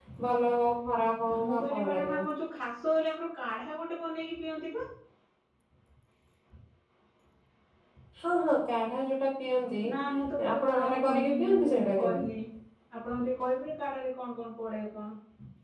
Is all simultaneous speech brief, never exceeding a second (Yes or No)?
No